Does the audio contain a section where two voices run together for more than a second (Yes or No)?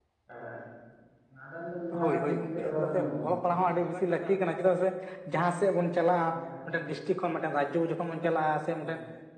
Yes